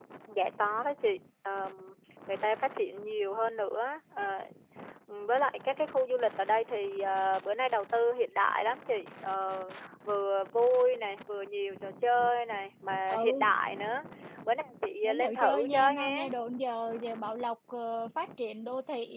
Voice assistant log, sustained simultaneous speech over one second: present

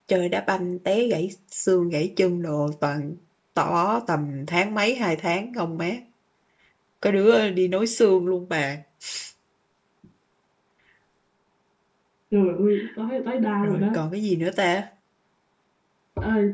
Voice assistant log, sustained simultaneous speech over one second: none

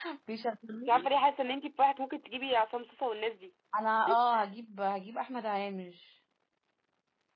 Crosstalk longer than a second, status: none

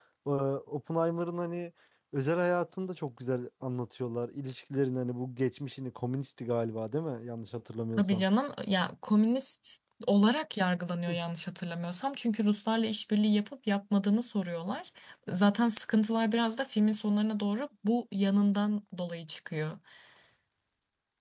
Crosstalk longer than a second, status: none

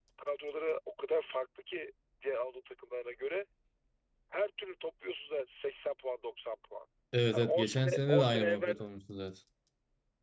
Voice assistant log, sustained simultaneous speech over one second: present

